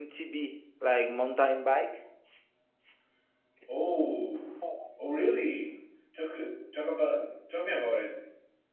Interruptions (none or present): none